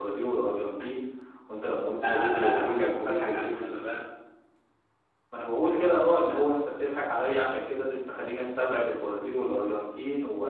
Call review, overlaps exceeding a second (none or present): present